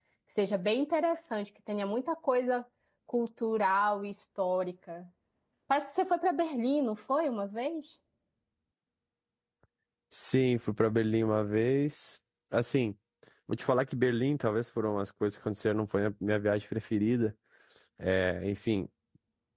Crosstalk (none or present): none